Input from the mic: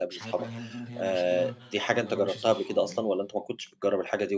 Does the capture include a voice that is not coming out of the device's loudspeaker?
Yes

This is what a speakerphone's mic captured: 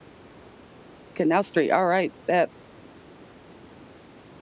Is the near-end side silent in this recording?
No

